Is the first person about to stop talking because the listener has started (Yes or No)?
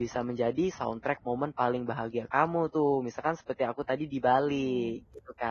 Yes